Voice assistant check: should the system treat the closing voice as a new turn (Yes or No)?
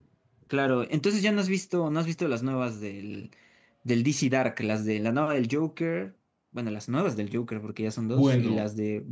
Yes